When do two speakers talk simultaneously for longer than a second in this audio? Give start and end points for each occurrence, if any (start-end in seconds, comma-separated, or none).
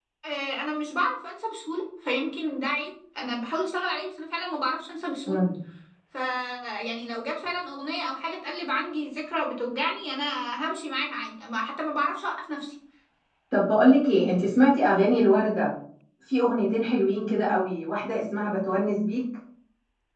none